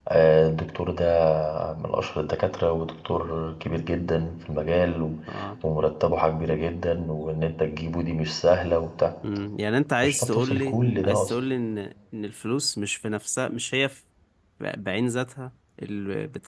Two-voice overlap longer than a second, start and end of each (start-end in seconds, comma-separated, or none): 10.0-11.3